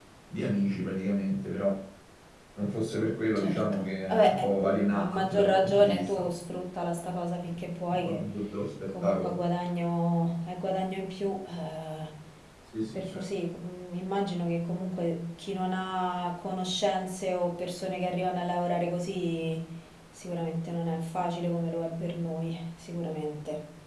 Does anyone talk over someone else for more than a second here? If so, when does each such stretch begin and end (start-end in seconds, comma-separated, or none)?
3.4-6.2